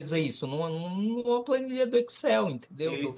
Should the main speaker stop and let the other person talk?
Yes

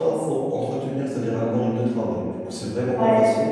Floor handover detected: Yes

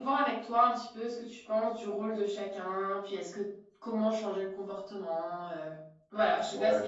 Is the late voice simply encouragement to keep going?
No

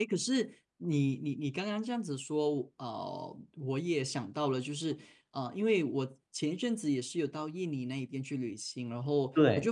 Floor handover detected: No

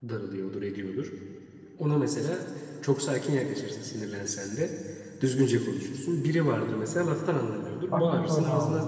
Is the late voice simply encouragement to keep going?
No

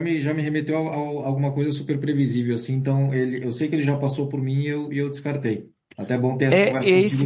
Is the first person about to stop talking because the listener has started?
Yes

